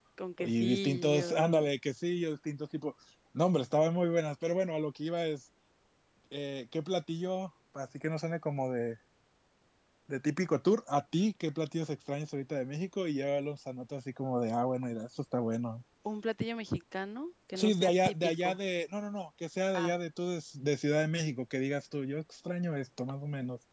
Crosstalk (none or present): present